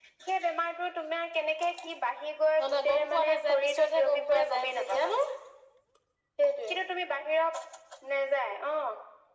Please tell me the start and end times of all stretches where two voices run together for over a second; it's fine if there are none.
2.6-5.1

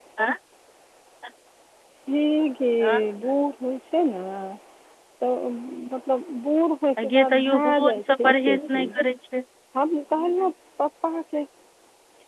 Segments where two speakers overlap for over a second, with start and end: 7.0-8.9

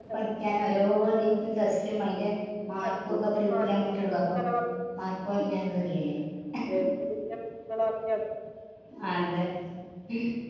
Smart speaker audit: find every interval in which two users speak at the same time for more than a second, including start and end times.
2.8-4.4

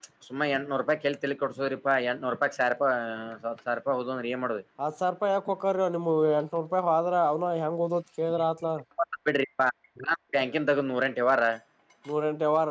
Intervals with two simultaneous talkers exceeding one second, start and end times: none

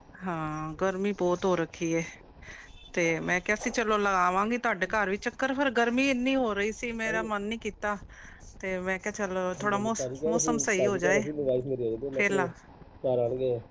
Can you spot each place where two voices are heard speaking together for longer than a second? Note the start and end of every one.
9.6-11.2

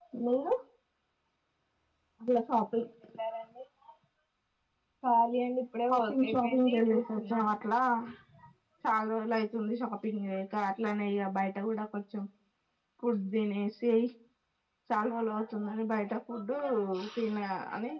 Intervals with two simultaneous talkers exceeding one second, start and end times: 5.9-7.5

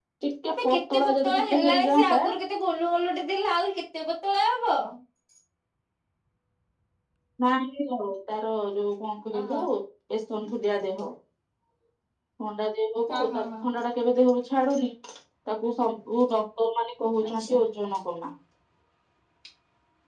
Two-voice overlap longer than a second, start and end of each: 0.5-2.2

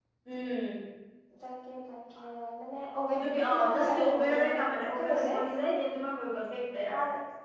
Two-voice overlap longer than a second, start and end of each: 3.1-5.4

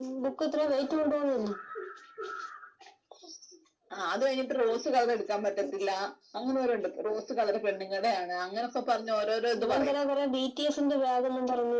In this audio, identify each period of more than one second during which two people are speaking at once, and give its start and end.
none

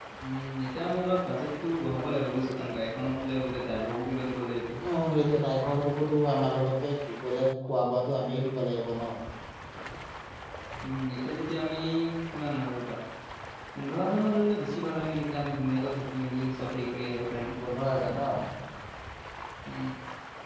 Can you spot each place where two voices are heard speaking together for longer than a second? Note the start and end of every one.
none

